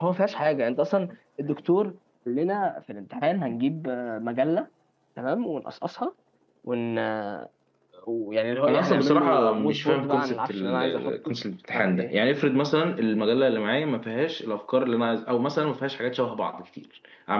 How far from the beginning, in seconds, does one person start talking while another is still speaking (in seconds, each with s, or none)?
8.7 s